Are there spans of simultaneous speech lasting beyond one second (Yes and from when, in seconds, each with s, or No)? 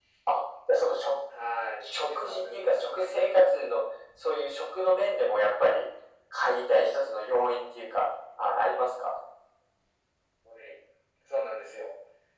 Yes, from 1.8 s